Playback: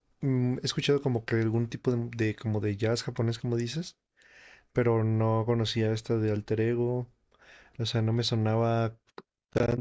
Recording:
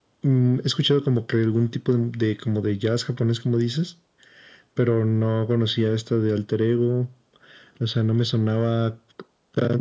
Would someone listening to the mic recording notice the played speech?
Yes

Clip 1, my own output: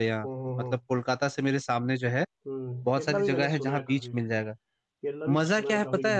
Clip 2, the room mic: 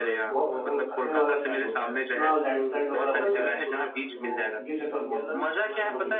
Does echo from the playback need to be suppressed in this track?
Yes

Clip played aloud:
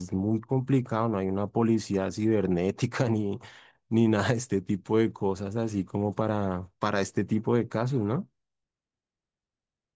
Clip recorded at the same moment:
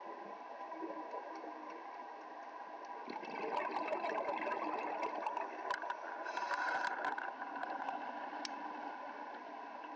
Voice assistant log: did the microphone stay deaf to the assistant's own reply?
Yes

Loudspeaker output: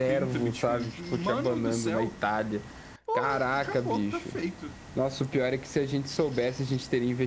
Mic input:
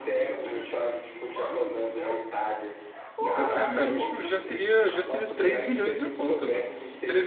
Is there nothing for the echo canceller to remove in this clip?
No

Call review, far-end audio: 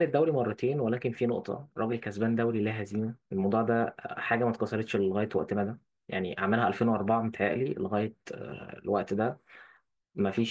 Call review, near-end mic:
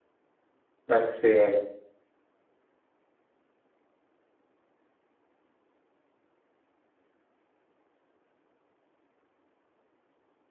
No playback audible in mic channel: Yes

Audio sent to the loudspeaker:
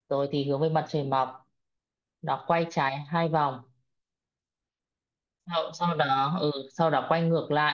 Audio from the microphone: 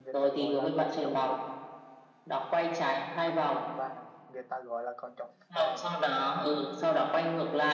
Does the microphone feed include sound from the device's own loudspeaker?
Yes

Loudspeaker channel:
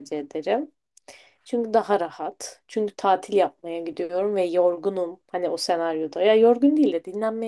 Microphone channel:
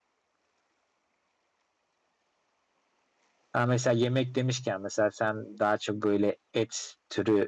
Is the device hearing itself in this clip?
No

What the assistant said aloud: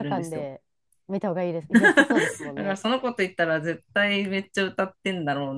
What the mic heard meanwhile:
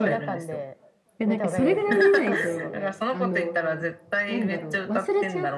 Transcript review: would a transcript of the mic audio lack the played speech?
No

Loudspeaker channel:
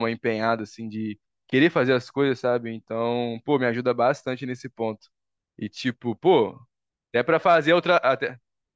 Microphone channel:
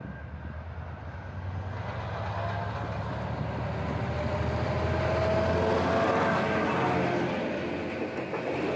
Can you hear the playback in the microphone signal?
No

